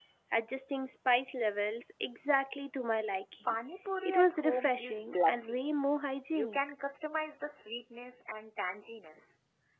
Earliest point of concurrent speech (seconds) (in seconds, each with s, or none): 4.0 s